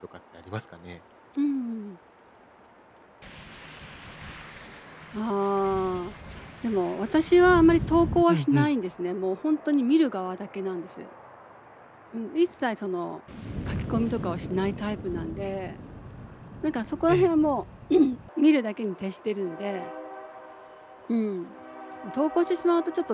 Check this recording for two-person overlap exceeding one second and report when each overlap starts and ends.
none

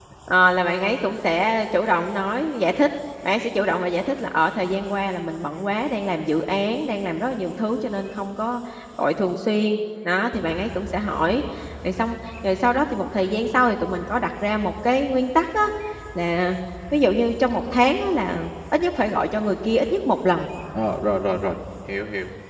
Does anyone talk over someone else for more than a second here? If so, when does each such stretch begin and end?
none

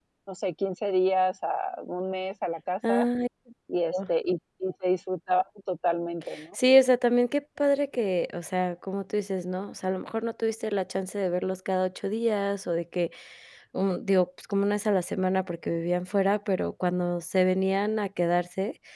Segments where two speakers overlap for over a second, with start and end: none

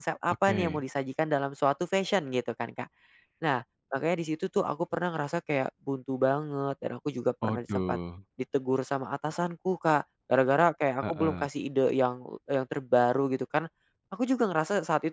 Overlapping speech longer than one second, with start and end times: none

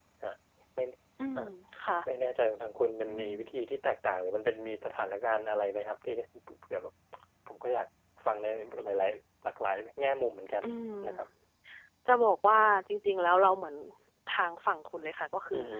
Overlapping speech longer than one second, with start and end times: none

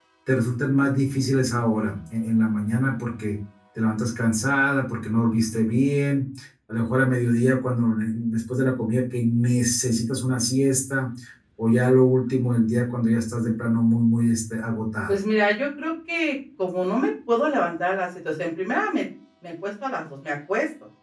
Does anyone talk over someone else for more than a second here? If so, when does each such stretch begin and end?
none

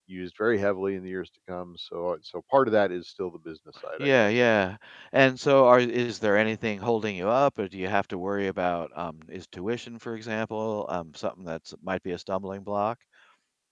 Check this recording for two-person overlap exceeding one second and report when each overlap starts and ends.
none

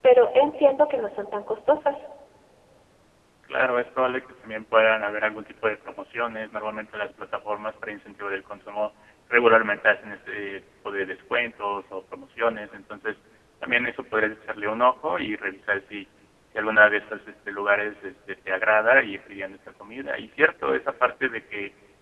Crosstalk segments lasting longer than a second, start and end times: none

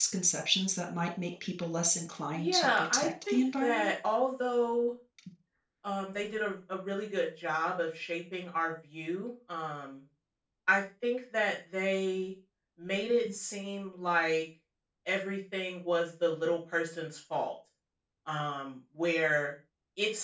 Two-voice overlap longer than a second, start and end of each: 2.3-3.9

